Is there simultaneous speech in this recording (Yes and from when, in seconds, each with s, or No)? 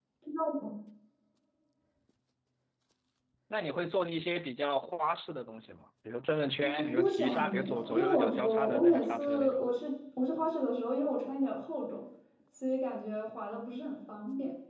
Yes, from 6.6 s